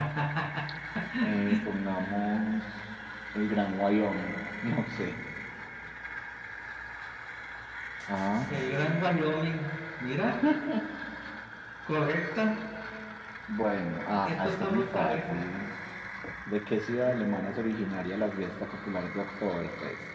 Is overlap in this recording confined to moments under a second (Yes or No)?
No